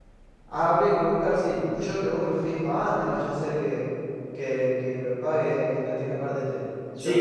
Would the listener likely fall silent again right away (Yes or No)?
Yes